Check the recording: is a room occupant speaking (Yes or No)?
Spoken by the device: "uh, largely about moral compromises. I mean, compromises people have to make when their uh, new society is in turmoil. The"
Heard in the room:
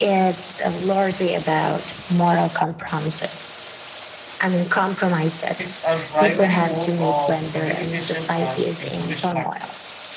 Yes